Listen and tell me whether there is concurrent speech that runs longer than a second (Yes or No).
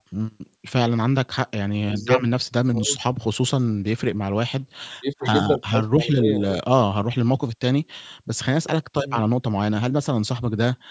Yes